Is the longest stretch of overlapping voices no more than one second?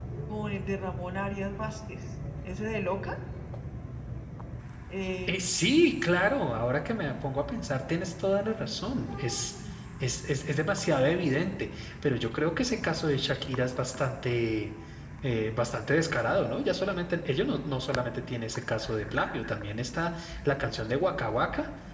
Yes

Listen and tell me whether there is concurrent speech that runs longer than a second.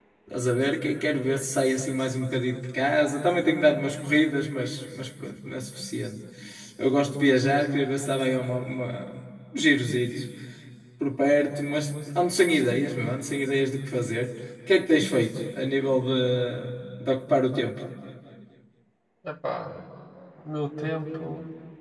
No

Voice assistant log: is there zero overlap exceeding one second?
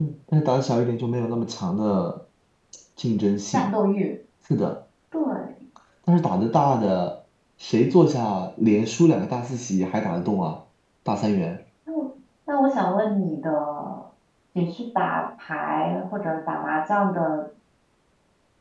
Yes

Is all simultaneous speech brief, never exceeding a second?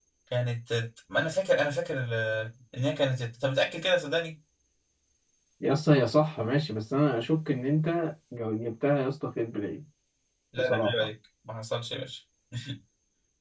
Yes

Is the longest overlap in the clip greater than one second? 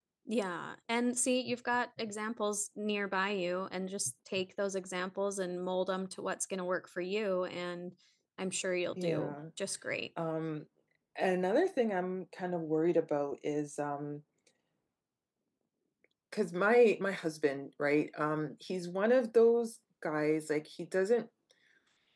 No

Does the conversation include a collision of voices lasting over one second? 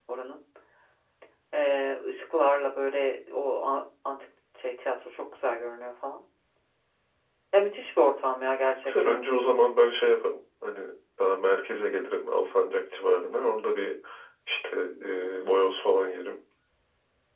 No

